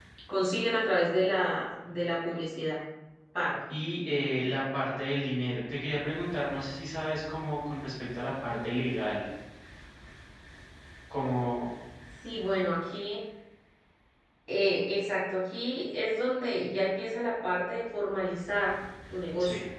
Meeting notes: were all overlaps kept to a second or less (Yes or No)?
Yes